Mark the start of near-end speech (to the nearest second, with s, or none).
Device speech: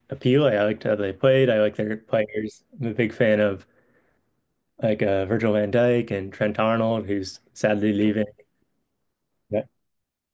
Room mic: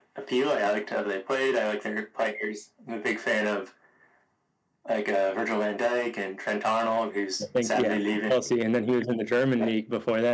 7 s